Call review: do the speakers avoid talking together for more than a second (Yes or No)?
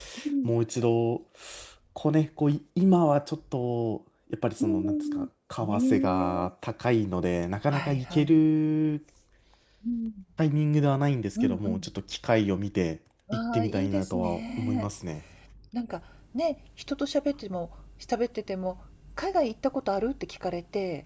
No